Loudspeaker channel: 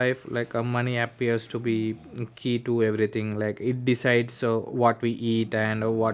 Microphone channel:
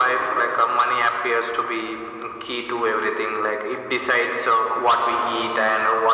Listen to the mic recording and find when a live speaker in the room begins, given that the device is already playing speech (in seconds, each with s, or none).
none